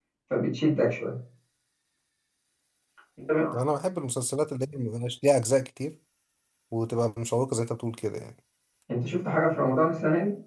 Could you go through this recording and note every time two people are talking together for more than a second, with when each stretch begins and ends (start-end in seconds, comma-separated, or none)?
none